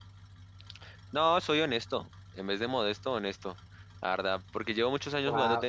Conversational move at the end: taking over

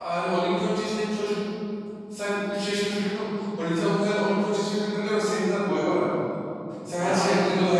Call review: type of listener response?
listening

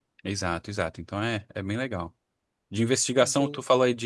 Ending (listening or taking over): listening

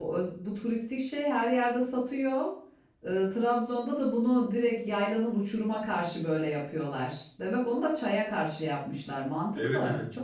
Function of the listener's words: taking over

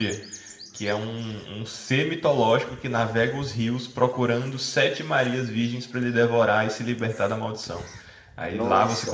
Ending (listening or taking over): listening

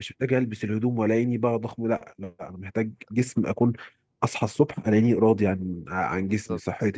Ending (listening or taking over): taking over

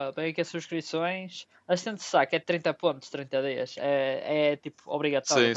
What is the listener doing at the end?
taking over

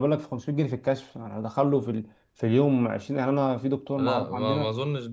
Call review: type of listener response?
taking over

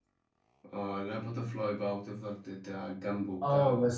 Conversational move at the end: taking over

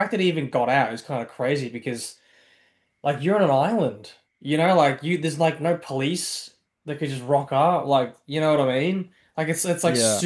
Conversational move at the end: listening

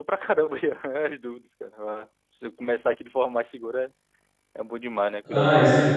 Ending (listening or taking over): taking over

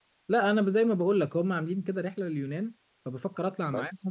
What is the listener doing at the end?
listening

